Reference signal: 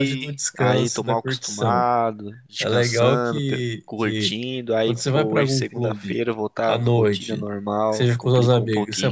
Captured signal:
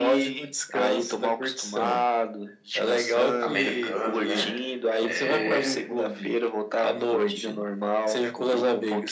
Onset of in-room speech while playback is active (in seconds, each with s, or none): 3.4 s